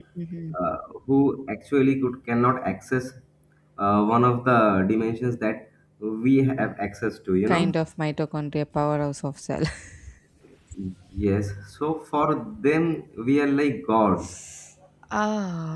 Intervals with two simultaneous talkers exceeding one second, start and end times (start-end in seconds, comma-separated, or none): none